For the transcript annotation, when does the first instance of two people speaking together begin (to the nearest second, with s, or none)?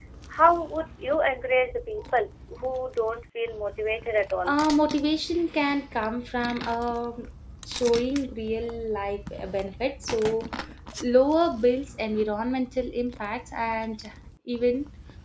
none